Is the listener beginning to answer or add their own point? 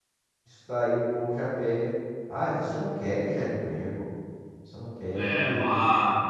Yes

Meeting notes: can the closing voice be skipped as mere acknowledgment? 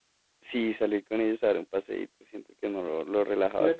No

